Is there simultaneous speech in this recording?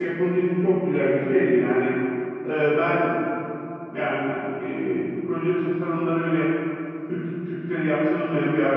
No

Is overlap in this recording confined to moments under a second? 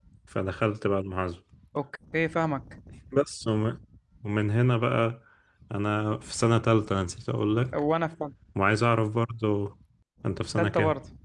Yes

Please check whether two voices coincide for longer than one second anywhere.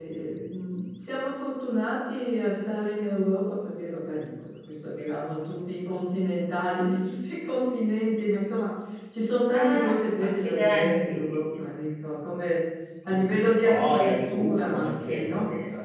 Yes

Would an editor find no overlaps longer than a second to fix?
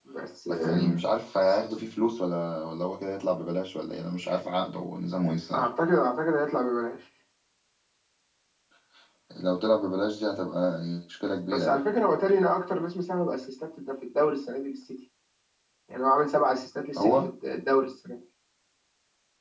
Yes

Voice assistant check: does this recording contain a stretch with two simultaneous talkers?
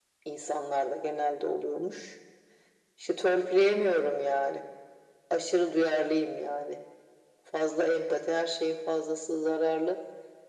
No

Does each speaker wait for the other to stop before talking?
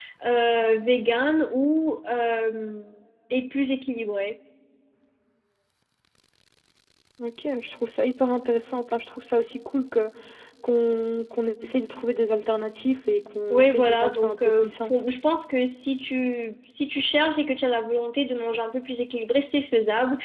No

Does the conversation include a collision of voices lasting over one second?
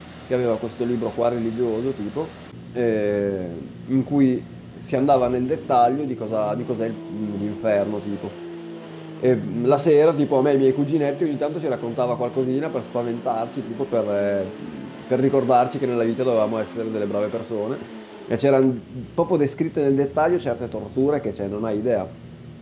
No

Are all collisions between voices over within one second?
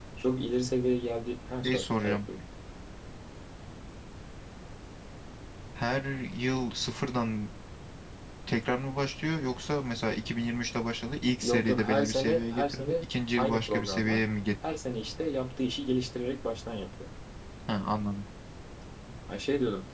No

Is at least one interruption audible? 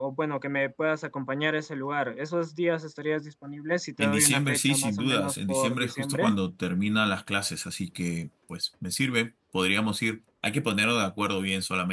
Yes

